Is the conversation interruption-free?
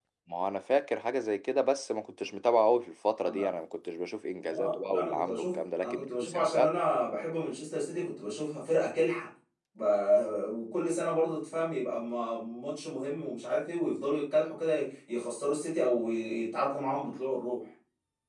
No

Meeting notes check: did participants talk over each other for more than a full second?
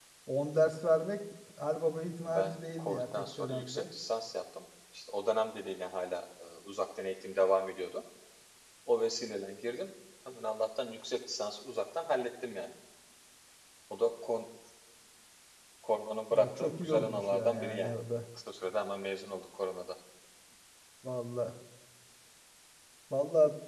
Yes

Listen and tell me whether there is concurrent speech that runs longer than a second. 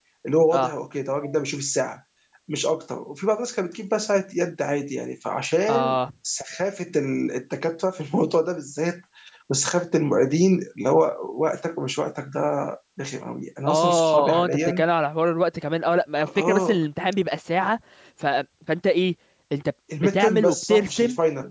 Yes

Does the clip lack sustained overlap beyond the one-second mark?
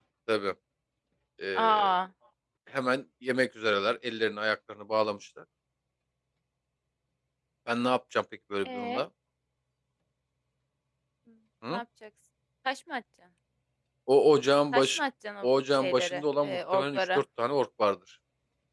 No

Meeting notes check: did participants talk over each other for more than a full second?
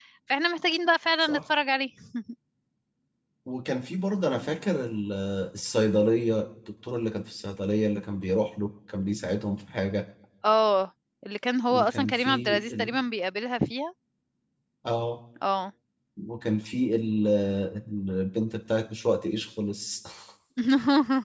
Yes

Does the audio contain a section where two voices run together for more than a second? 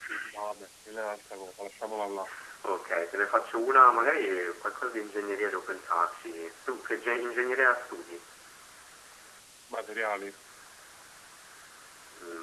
No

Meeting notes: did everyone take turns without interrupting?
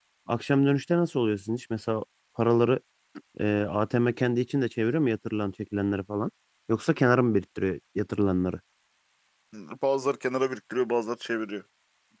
Yes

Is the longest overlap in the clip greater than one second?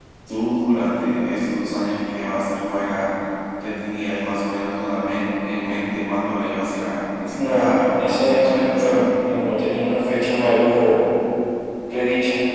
Yes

